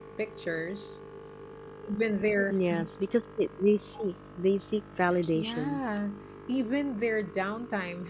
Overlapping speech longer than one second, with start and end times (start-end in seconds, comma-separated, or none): none